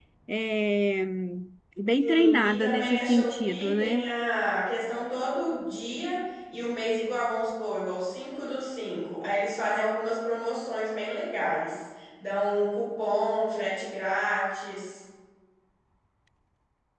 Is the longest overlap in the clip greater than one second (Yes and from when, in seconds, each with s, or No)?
Yes, from 2.0 s